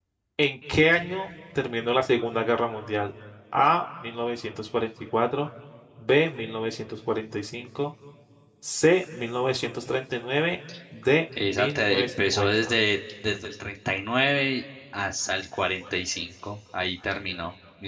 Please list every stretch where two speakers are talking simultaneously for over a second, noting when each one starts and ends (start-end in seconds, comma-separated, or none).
11.5-12.7